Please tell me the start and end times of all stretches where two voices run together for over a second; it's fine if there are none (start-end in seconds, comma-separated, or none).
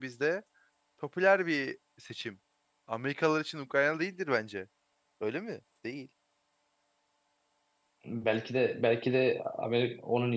none